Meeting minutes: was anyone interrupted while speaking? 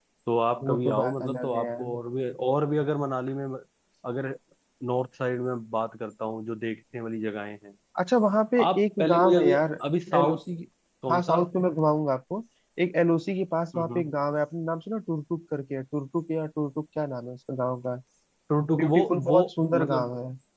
Yes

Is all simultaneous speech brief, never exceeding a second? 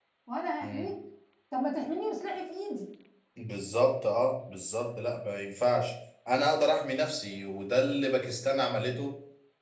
Yes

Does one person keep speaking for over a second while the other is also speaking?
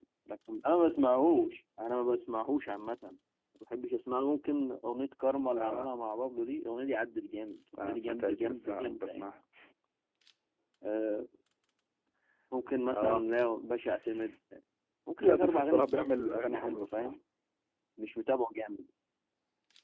Yes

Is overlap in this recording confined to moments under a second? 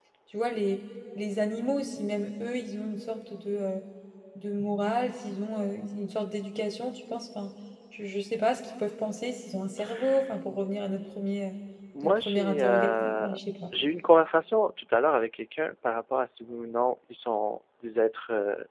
No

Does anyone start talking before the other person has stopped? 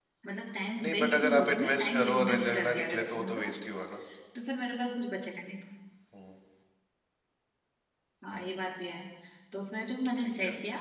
Yes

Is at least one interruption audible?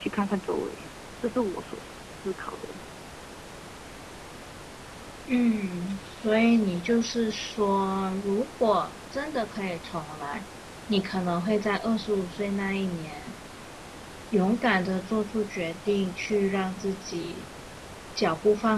No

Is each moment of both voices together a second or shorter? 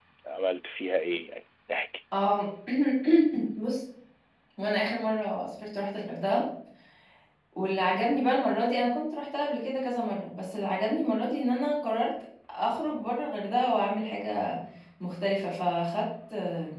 Yes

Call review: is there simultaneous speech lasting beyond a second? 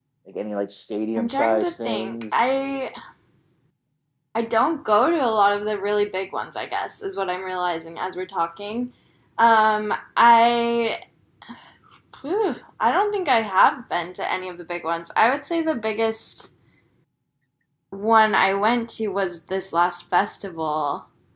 Yes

